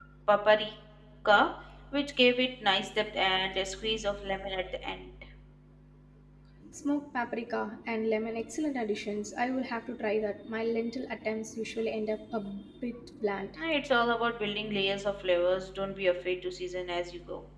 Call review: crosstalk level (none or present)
none